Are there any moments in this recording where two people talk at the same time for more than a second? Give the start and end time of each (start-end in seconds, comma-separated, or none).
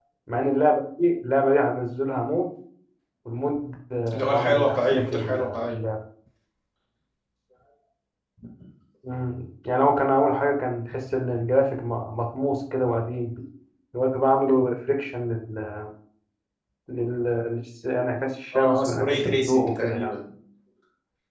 4.1-5.8, 18.6-20.1